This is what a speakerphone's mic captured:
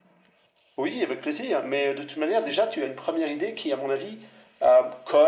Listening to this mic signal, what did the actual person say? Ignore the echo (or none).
none